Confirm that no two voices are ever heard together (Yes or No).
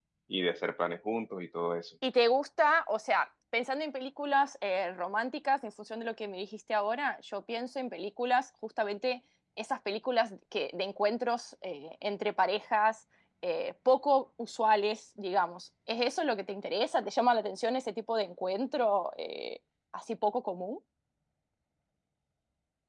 Yes